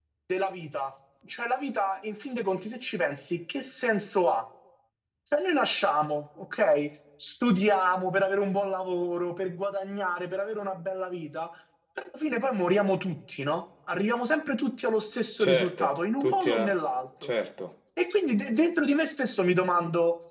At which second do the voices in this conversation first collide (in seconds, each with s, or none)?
15.4 s